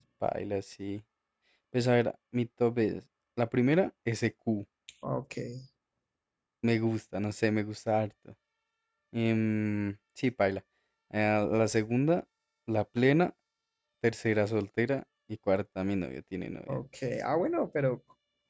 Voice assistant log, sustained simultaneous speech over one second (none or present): none